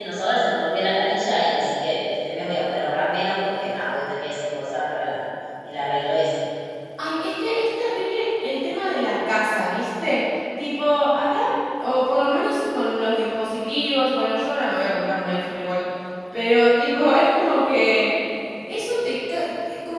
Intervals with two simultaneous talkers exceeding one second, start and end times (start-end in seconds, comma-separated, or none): none